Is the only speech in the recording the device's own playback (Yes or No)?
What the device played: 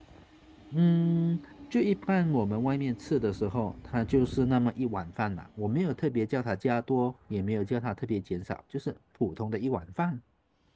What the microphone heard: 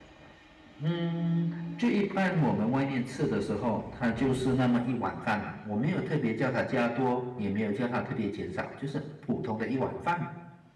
Yes